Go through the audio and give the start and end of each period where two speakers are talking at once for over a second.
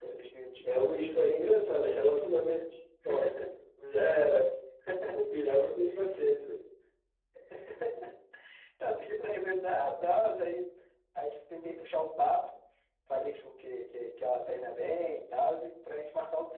none

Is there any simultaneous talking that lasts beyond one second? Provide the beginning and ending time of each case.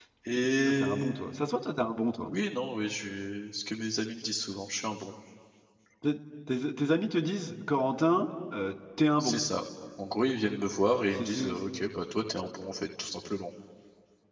none

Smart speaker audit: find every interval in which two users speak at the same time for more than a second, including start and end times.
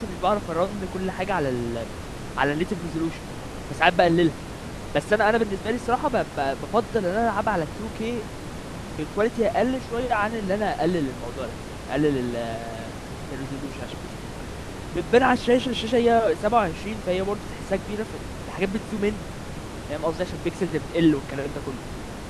none

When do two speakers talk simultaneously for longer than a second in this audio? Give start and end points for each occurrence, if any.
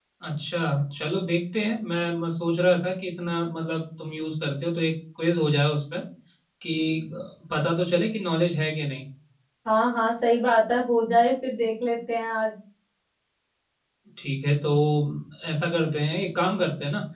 none

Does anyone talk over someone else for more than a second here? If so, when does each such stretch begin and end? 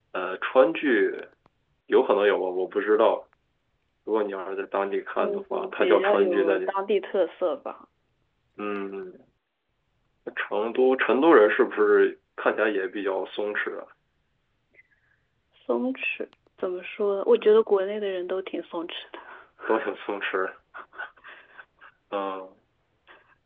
5.2-6.6

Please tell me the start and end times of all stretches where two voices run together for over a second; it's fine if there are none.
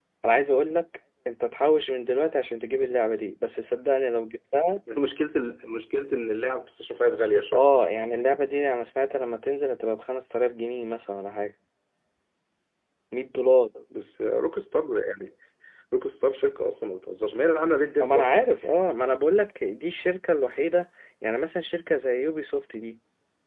none

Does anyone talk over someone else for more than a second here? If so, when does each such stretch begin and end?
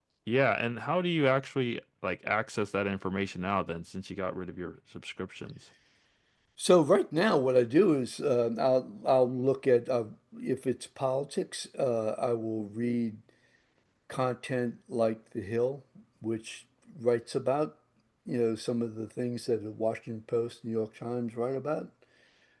none

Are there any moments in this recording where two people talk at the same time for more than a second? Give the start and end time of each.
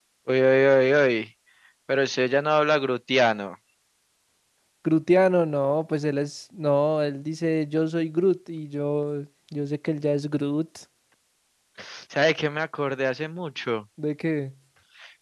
none

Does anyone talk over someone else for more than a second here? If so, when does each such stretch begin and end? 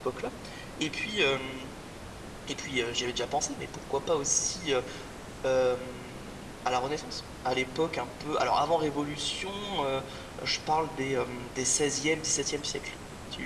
none

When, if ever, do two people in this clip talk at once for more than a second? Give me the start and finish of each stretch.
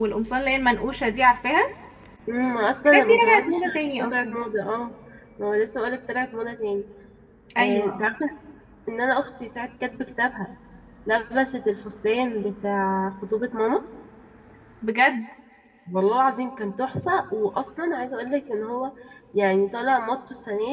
2.9-4.3

